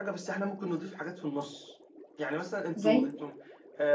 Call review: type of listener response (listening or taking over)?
listening